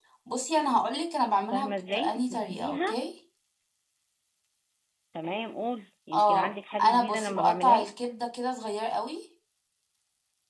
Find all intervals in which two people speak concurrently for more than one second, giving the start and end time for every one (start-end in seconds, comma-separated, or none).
1.5-3.0, 6.1-7.8